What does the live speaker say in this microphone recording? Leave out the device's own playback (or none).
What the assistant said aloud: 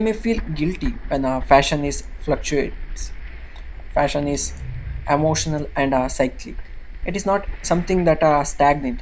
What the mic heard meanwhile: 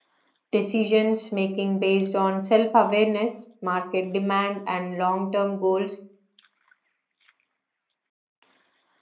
decisions making based on self awareness, market demand, and long term goals